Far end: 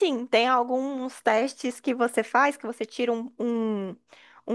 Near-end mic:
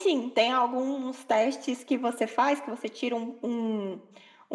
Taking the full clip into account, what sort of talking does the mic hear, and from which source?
echo only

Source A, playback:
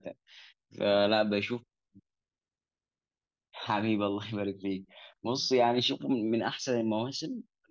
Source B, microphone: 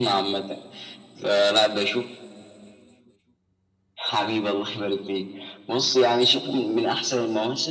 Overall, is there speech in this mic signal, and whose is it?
echo only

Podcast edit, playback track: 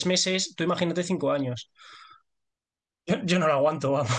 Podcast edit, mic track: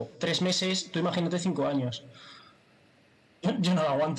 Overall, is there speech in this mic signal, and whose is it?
echo only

